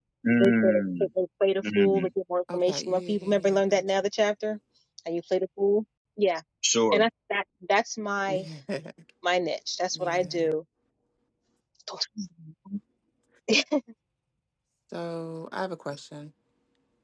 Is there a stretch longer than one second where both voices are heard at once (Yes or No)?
Yes